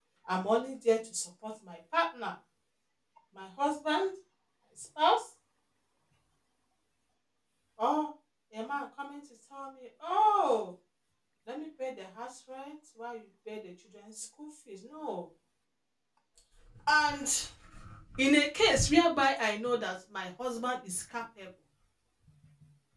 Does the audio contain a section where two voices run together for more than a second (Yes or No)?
No